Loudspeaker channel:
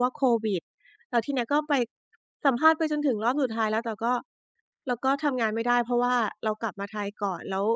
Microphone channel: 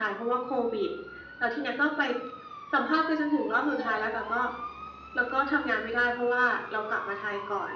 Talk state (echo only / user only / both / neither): echo only